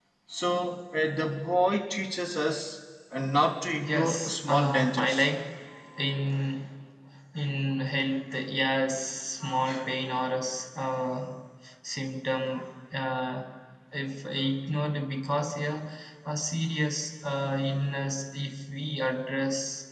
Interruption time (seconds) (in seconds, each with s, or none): 3.9 s